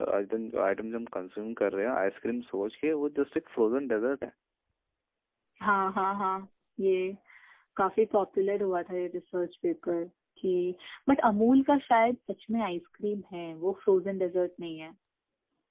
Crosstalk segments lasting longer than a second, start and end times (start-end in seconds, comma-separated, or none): none